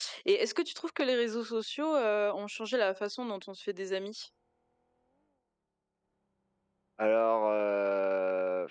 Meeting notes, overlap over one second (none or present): none